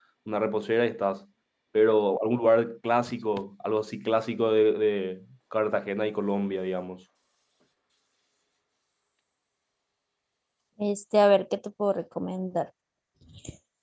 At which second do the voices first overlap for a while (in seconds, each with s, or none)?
none